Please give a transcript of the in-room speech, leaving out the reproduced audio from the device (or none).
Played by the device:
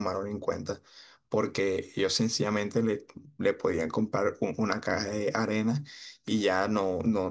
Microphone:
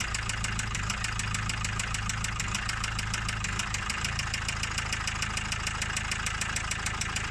none